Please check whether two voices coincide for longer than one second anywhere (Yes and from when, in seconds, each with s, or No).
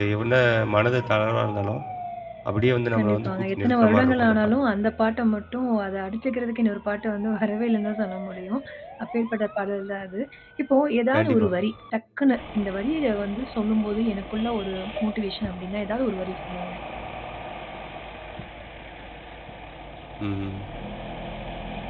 Yes, from 3.0 s